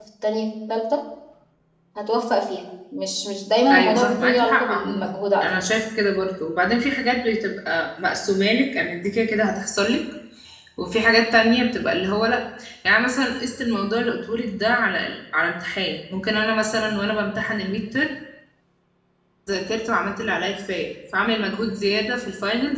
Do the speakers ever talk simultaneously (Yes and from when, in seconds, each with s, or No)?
Yes, from 3.7 s